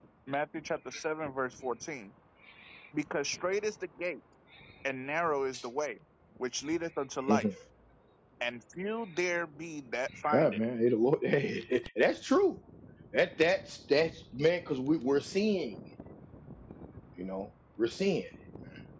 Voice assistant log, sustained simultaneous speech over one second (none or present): none